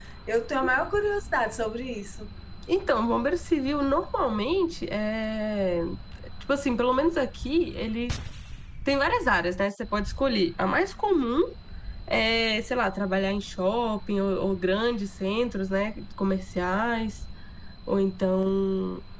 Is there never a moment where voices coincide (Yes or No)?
Yes